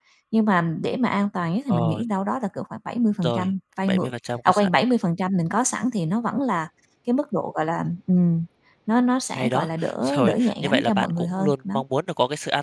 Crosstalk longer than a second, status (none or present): present